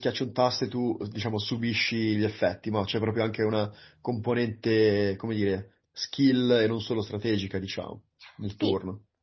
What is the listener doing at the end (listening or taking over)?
taking over